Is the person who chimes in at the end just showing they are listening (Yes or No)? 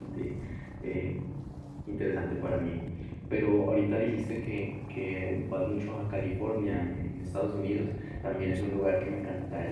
Yes